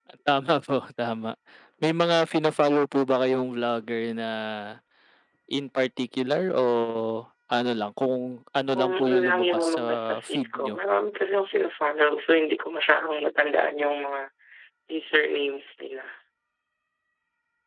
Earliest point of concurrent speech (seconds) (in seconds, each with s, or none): 8.7 s